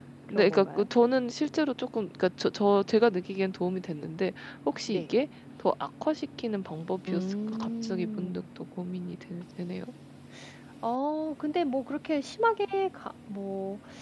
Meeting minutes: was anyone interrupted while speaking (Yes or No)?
Yes